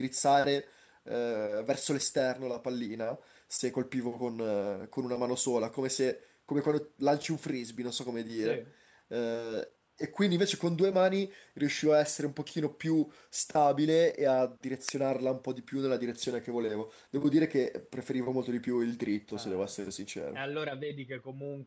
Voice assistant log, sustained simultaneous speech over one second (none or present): none